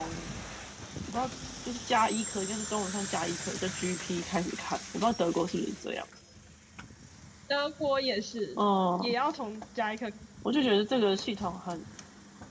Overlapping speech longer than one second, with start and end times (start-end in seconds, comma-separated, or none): none